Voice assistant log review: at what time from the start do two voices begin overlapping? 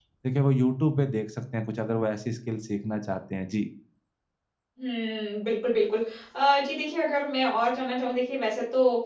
none

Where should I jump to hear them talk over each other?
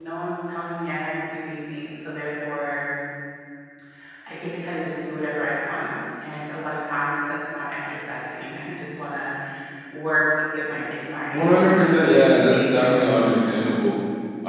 11.3 s

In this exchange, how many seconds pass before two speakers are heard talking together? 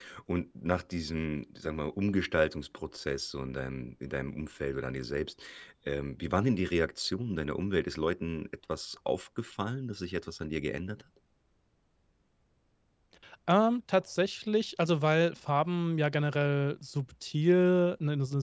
none

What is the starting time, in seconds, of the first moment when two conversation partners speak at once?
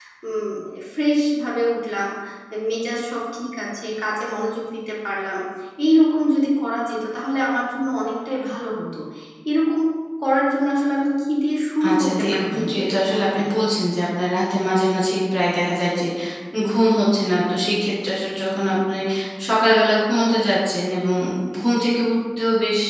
11.8 s

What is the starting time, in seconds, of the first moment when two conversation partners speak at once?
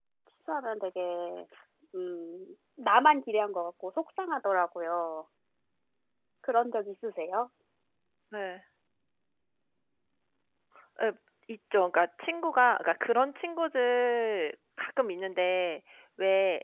none

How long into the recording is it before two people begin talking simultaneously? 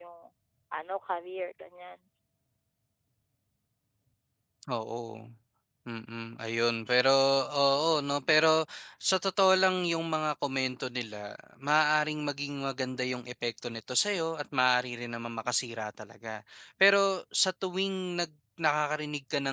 none

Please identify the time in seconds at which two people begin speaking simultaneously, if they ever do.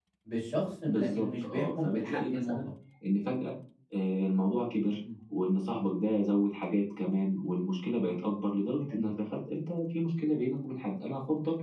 0.8 s

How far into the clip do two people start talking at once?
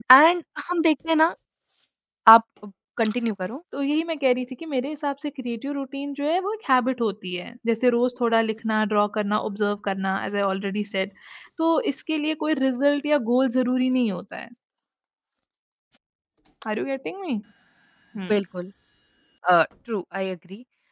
none

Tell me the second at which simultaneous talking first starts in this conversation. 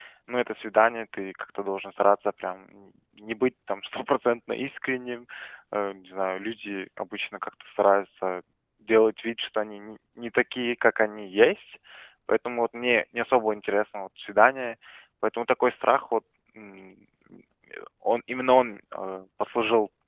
none

